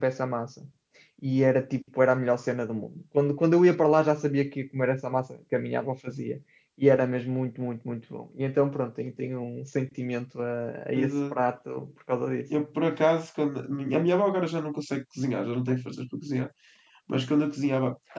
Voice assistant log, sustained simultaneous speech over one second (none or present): none